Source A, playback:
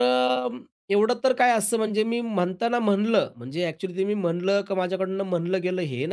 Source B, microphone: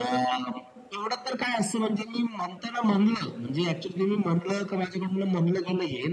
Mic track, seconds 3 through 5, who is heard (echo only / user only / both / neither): echo only